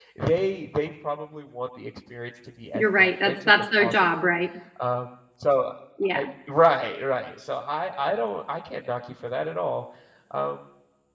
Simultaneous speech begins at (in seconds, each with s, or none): 2.7 s